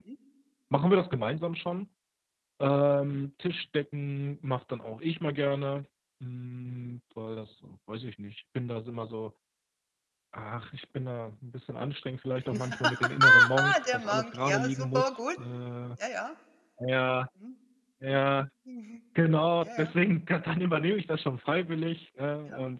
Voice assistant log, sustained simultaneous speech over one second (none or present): present